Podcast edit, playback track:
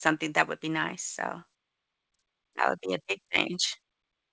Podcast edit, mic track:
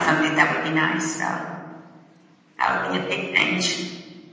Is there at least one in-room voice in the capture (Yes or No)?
No